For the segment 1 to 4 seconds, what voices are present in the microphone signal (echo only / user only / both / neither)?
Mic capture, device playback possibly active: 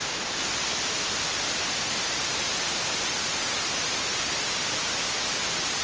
neither